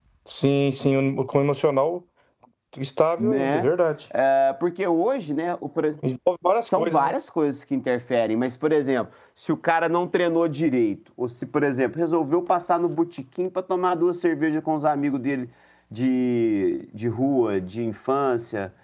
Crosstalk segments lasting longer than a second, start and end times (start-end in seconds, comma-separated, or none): none